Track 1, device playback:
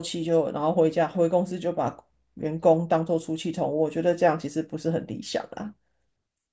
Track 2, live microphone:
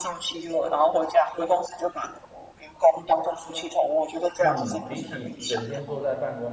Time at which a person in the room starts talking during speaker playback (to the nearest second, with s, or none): 4 s